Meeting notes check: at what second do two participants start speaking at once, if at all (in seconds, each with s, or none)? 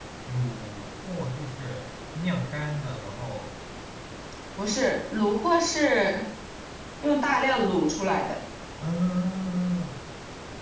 none